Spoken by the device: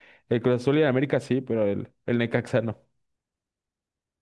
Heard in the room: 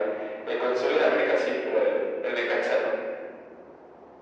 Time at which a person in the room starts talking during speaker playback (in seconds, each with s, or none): none